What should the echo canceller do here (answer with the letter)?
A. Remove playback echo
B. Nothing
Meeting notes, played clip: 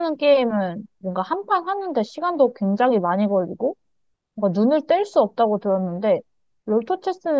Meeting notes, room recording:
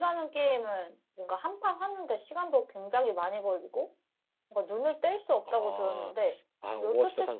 A